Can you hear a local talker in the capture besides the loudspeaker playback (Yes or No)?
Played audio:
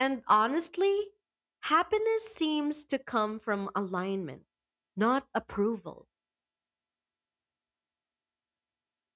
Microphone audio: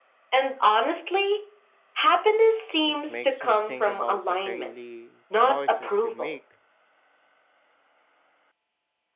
Yes